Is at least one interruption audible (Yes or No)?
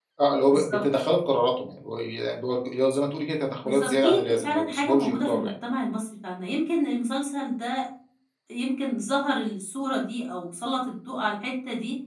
Yes